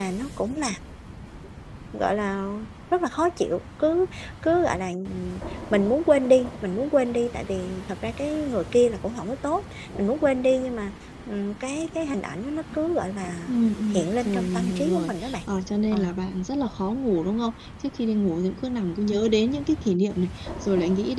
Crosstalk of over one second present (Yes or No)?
Yes